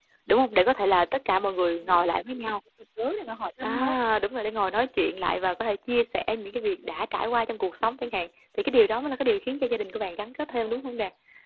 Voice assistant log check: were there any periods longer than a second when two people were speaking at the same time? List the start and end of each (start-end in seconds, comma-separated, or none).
none